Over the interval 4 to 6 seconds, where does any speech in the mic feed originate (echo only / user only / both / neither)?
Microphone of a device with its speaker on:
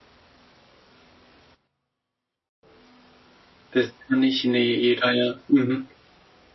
user only